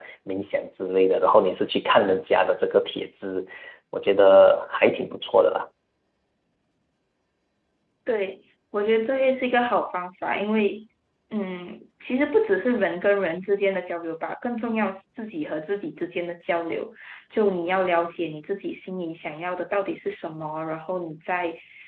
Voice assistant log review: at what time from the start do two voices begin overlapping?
none

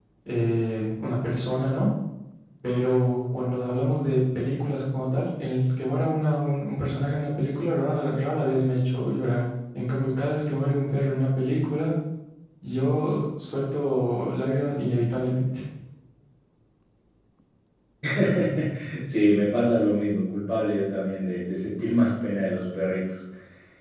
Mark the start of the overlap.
none

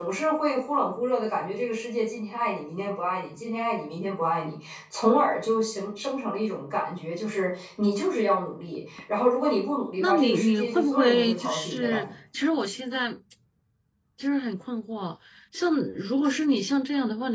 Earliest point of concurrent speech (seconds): 10.0 s

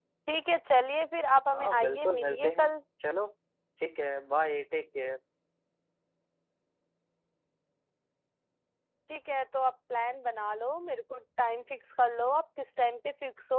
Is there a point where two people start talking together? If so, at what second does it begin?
1.5 s

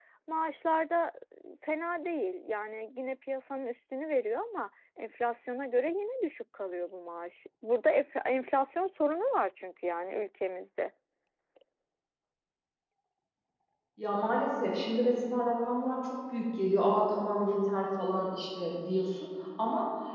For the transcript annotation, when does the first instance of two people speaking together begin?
none

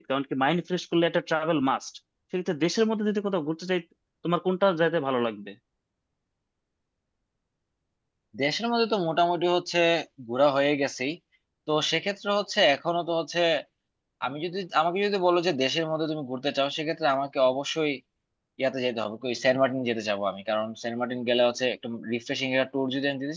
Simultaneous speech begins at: none

